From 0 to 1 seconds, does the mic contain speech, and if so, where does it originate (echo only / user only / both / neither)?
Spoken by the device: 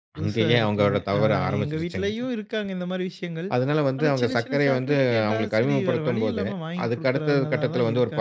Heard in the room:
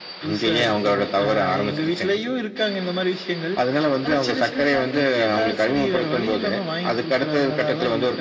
echo only